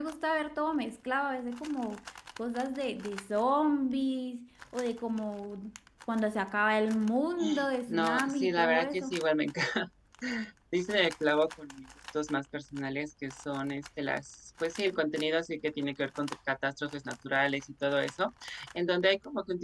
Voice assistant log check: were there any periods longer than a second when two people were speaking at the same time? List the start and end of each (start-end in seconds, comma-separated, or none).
7.9-9.2